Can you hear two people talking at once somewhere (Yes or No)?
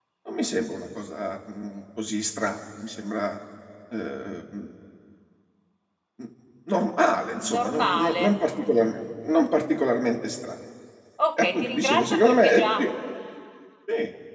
Yes